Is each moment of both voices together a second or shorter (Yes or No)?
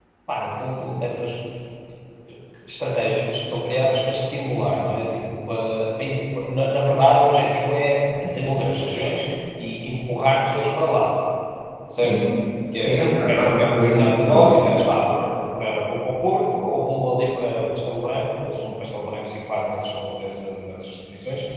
No